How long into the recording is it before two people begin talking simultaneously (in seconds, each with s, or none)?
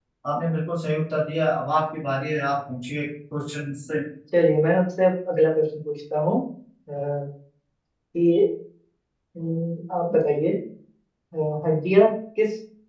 none